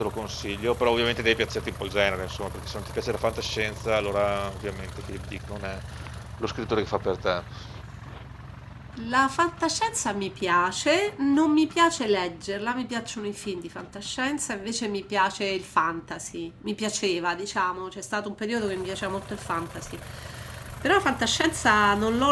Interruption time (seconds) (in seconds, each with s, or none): none